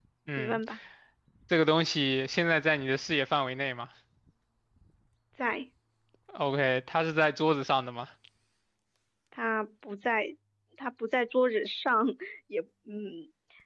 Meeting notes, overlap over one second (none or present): none